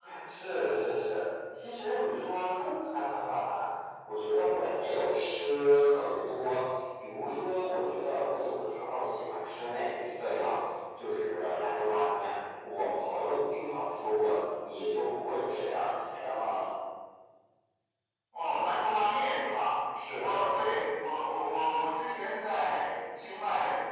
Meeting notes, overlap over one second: none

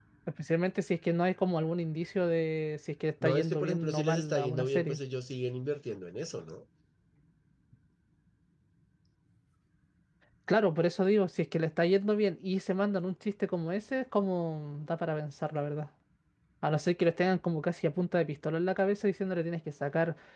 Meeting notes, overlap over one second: present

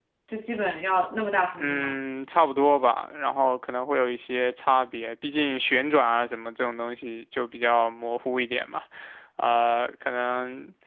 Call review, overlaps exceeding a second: none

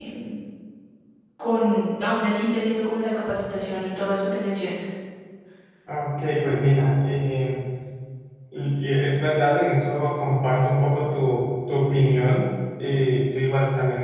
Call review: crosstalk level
none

